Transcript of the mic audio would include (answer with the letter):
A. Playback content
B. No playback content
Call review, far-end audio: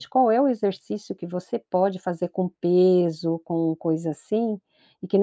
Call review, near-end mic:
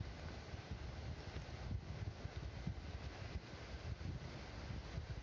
B